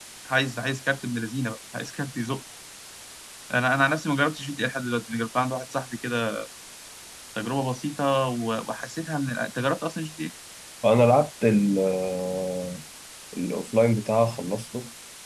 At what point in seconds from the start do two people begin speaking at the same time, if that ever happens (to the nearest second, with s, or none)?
none